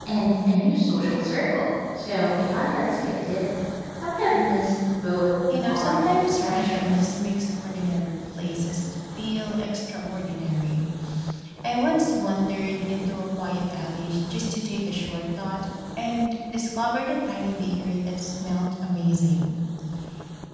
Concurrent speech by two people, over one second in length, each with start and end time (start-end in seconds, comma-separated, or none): 5.5-7.0